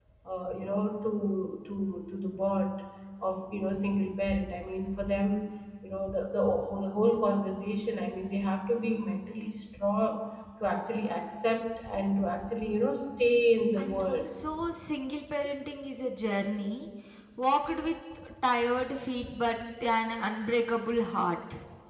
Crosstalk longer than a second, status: none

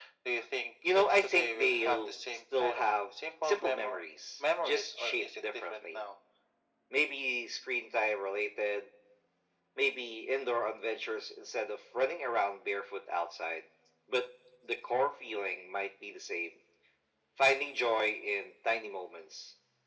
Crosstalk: present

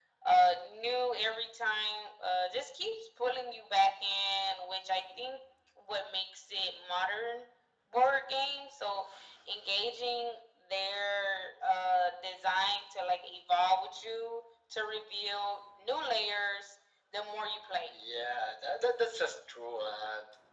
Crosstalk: none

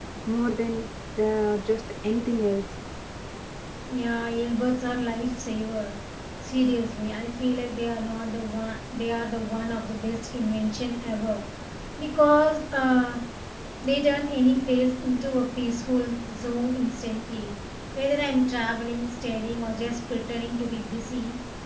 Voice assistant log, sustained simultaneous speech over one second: none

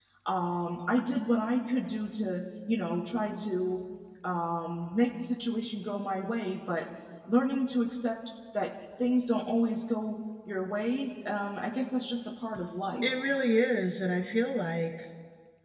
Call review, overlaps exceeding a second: none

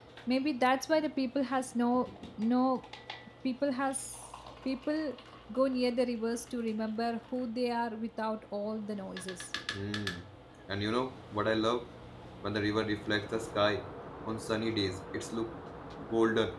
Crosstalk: none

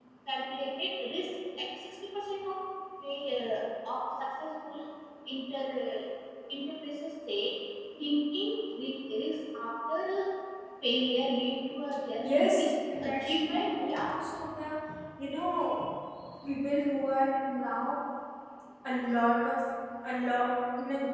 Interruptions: present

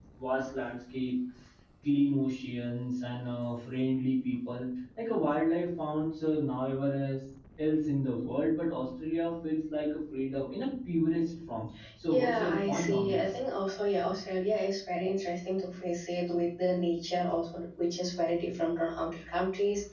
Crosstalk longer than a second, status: present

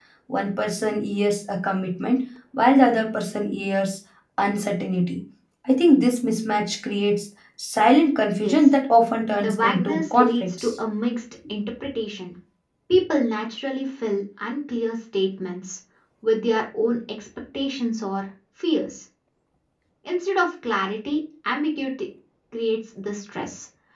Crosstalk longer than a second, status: present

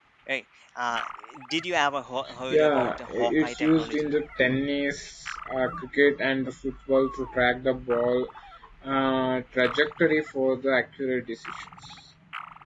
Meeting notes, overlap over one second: present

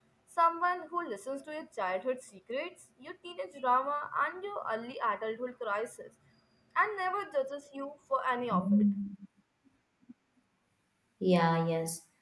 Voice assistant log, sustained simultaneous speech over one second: none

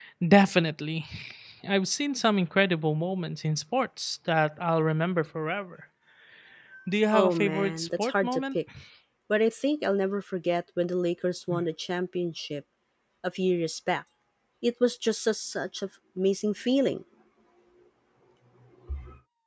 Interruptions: present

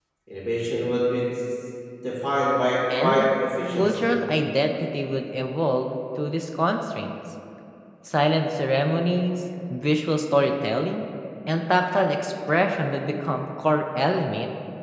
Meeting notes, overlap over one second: none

